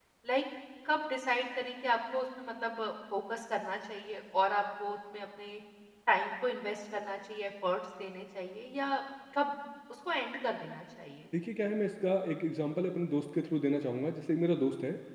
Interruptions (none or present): none